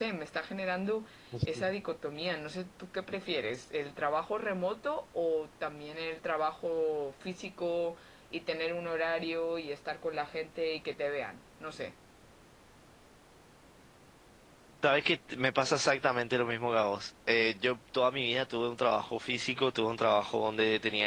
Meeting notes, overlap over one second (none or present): none